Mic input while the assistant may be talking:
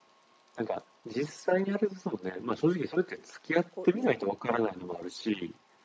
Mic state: both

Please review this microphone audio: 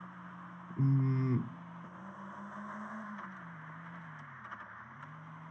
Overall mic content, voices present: user only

